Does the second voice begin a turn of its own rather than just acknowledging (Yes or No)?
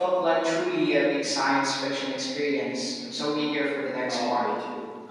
Yes